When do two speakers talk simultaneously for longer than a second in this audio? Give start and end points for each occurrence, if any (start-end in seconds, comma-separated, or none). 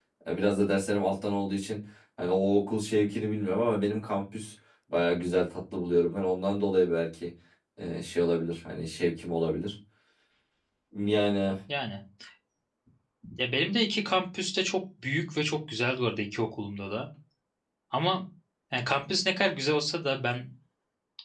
none